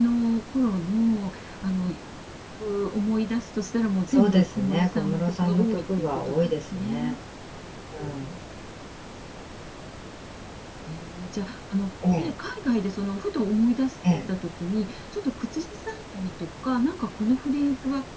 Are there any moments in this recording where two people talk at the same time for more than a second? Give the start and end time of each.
4.1-7.2

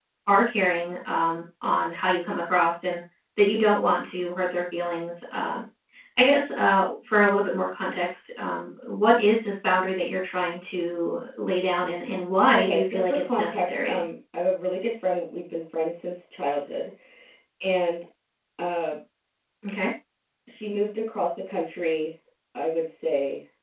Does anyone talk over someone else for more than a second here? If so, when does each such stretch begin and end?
12.5-14.0

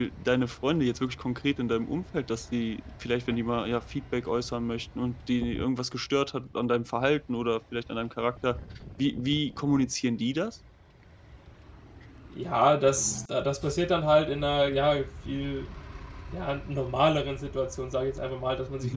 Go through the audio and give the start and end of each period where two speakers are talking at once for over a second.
none

